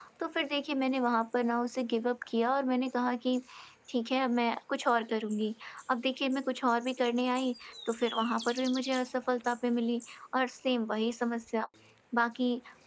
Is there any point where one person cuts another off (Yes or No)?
No